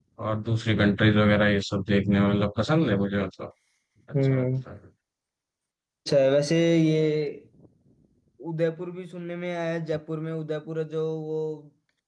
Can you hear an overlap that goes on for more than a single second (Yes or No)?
No